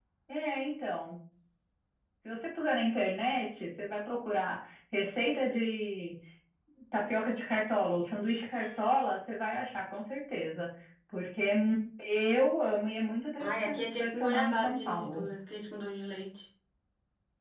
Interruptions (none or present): present